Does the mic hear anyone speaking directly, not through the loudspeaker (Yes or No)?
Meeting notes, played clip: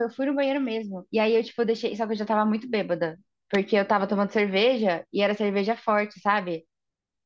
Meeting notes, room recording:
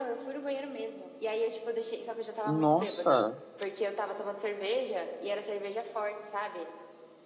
Yes